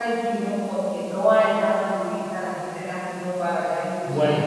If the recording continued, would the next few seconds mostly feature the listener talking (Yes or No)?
No